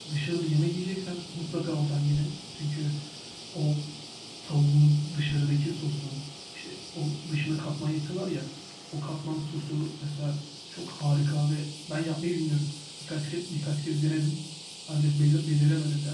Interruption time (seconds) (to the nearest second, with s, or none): none